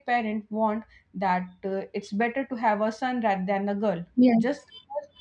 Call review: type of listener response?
listening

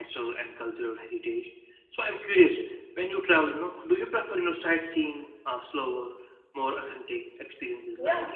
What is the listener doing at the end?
taking over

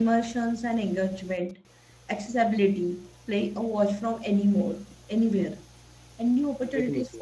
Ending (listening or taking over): listening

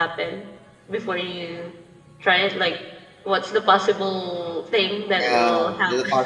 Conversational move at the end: taking over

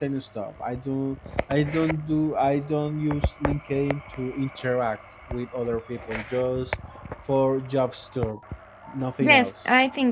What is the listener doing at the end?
taking over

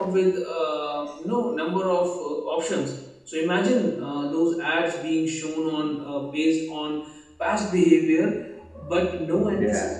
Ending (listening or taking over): listening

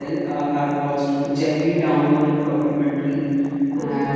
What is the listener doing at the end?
listening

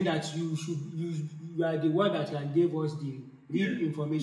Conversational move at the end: taking over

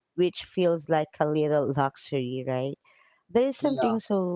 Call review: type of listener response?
listening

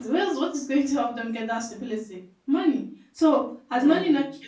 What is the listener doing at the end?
listening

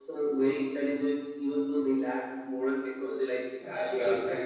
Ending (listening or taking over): taking over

